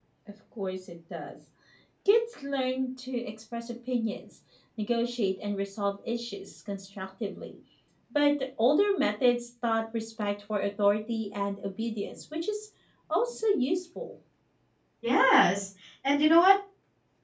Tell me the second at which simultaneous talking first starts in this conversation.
none

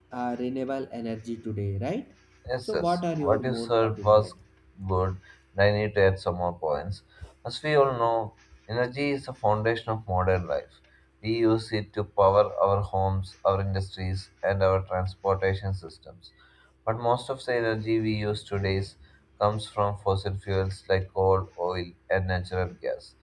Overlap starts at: 3 s

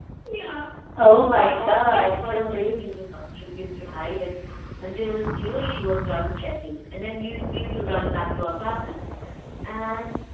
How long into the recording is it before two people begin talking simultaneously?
1 s

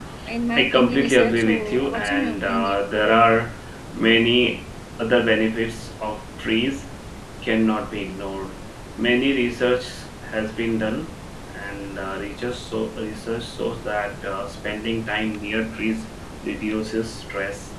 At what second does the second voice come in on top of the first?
1 s

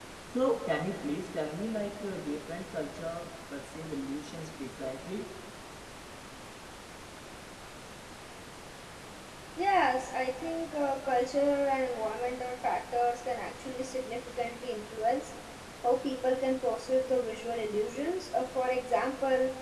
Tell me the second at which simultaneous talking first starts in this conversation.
none

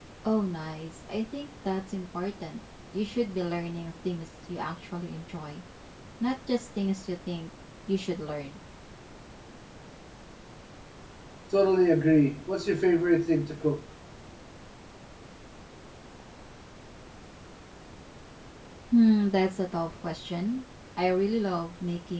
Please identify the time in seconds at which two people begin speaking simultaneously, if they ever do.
none

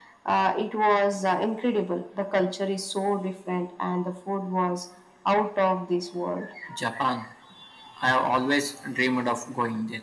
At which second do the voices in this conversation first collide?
none

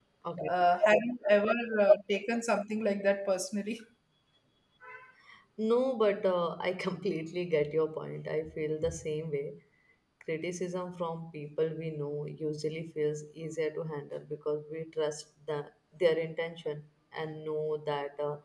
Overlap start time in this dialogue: none

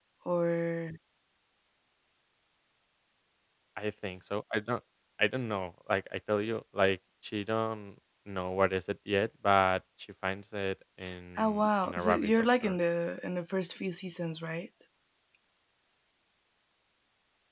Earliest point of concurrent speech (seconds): 11 s

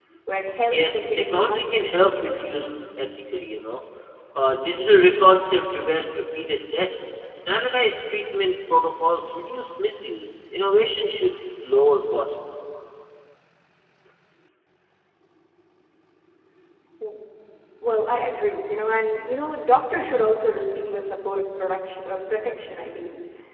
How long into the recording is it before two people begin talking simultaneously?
1 s

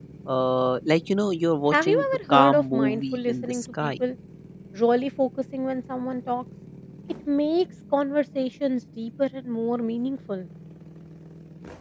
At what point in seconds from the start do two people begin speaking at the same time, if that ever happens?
2 s

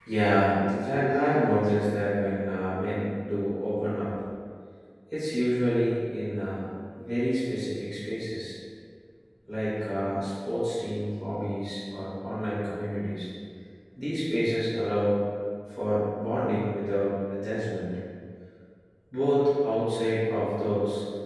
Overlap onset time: 1 s

